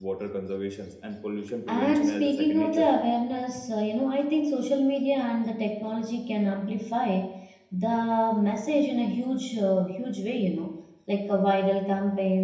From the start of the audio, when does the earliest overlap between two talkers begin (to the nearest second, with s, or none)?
2 s